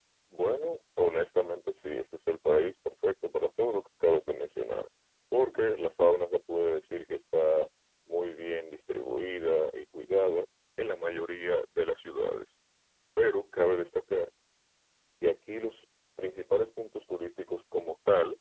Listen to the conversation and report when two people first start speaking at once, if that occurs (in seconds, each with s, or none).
none